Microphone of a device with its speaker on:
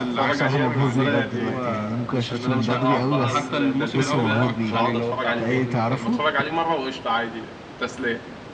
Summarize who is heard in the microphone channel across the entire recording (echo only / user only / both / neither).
both